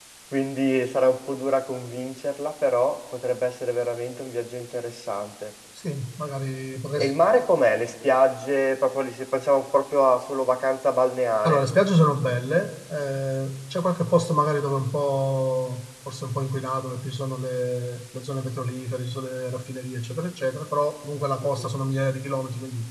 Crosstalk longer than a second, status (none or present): none